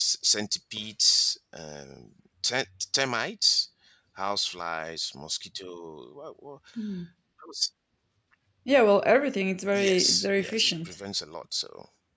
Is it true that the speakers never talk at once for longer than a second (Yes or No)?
No